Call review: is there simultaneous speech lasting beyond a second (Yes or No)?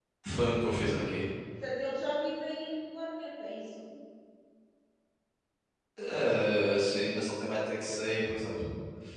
No